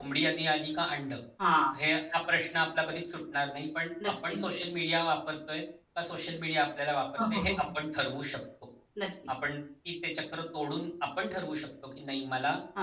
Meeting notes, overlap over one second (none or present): none